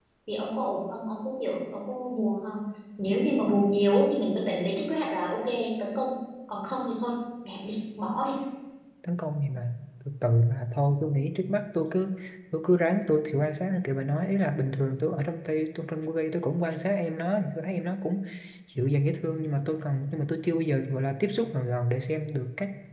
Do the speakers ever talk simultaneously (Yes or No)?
No